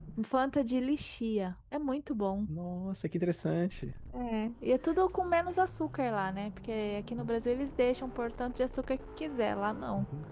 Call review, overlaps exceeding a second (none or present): none